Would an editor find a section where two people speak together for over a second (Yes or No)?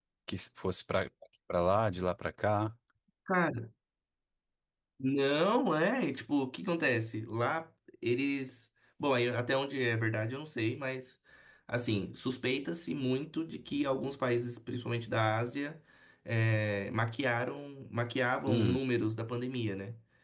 No